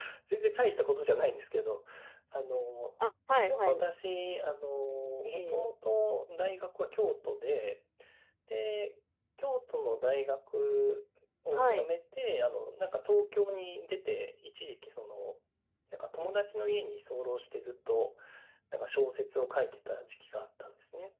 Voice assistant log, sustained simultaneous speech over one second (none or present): none